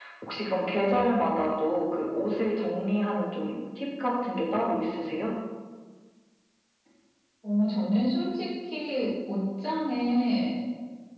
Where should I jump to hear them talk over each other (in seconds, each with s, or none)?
none